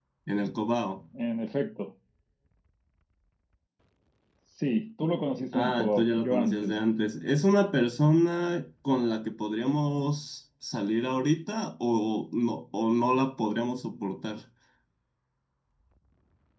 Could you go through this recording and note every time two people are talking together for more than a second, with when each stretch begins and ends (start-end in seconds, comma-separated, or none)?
5.5-6.7